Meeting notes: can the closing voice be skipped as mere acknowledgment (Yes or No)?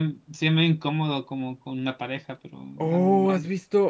No